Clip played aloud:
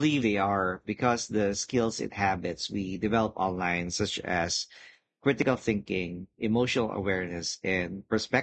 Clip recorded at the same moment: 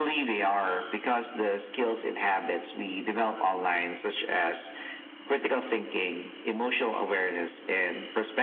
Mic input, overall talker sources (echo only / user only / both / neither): echo only